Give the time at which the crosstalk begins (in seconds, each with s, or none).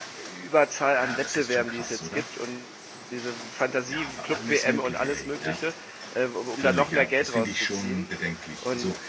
1.0 s